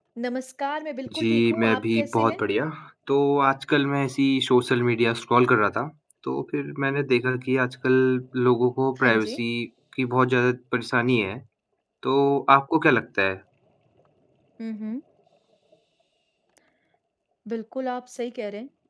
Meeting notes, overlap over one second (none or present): present